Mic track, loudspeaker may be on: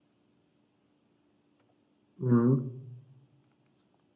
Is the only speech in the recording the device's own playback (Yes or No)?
No